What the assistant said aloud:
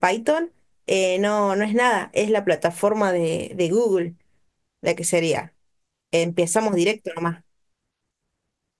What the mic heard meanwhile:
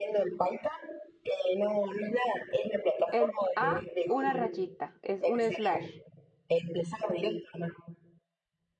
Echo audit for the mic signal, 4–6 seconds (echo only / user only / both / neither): both